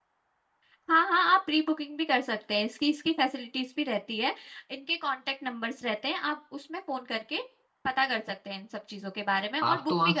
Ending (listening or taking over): taking over